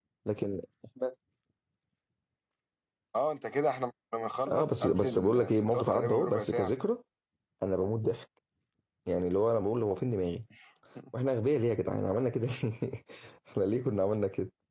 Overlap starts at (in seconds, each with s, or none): 4.5 s